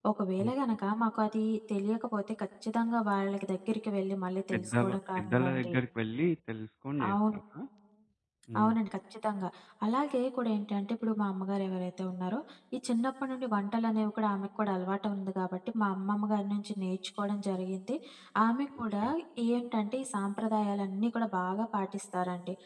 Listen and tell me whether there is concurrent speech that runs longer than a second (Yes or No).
Yes